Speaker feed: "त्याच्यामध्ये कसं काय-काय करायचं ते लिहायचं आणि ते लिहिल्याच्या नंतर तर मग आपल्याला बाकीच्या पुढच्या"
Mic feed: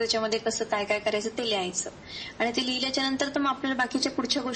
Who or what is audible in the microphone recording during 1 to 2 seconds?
echo only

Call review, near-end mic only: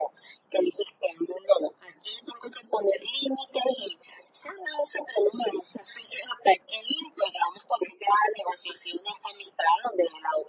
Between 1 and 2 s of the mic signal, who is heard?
echo only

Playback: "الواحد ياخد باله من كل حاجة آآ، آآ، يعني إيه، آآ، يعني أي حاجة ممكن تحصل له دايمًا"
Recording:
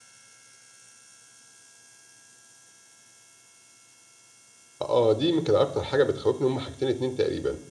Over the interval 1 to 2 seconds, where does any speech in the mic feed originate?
neither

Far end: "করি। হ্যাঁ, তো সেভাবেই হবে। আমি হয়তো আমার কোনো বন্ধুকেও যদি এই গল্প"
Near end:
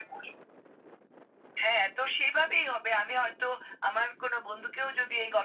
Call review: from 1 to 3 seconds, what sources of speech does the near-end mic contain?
echo only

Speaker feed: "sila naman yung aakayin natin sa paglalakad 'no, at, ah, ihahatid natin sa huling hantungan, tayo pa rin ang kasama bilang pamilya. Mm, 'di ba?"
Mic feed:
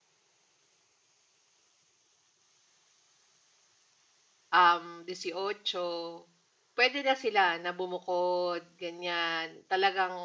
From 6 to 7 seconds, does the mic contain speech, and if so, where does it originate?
user only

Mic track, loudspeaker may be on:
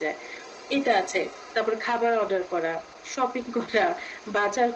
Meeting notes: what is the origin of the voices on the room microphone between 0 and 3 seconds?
echo only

